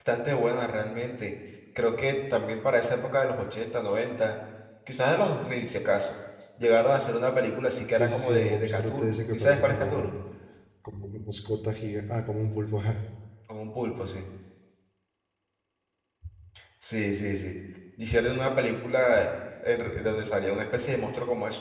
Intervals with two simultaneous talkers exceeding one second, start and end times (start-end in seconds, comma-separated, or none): 7.9-10.1